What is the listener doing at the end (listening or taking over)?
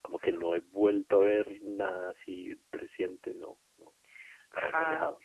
taking over